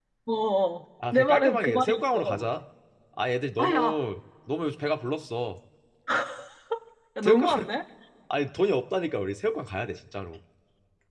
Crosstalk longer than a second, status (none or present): present